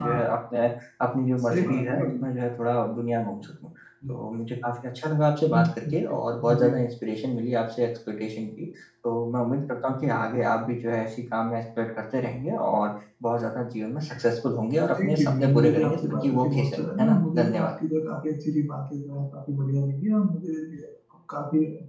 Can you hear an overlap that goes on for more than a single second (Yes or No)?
Yes